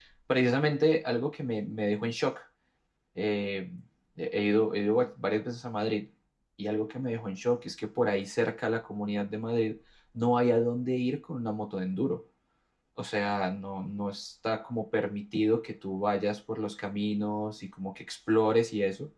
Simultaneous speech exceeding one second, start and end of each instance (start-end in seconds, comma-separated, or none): none